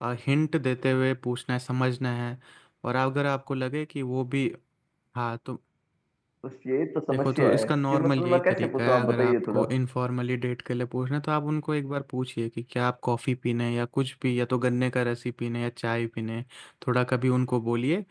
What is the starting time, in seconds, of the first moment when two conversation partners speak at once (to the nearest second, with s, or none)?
7 s